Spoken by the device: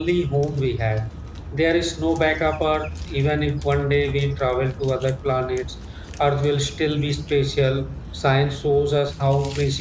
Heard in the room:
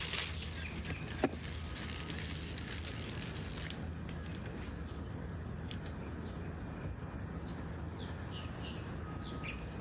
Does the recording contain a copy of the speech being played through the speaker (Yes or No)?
No